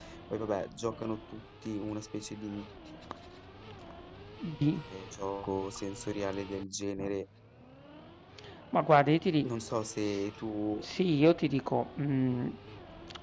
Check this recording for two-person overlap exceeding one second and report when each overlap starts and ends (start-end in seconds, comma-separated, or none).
none